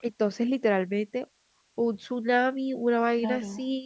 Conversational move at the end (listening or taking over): taking over